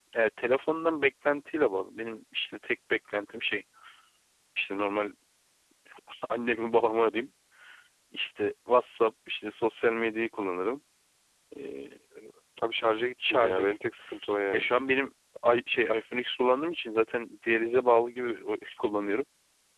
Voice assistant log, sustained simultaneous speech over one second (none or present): none